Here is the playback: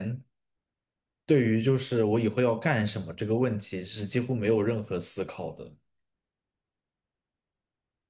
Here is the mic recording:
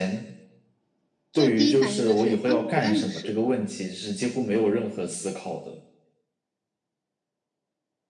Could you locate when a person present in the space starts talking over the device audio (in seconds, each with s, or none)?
1.3 s